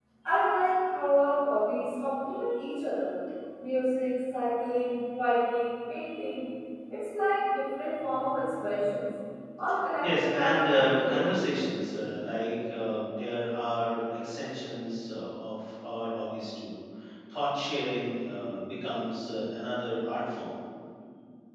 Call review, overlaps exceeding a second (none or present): present